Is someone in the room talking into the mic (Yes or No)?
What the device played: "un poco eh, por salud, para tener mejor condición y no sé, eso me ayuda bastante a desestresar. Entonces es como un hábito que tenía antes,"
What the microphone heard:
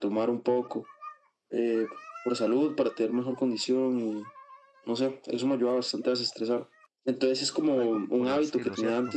Yes